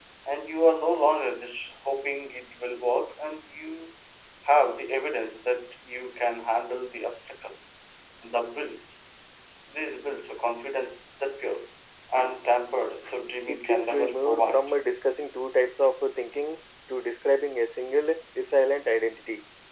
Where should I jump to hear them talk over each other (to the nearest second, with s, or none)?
13 s